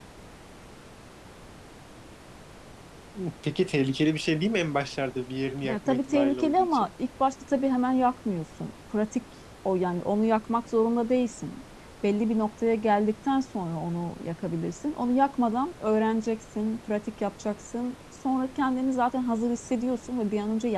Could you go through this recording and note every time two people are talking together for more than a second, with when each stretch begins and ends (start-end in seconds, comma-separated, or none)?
5.6-6.9